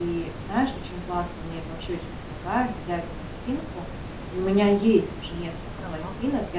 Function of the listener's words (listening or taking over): listening